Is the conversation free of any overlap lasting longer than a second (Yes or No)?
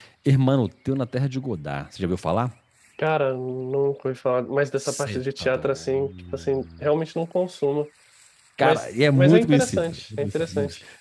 No